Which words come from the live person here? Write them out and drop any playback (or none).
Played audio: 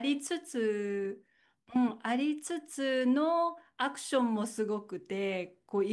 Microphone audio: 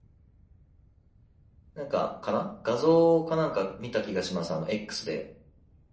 なんか、かな画像かなんか見た気がします。あの、X で。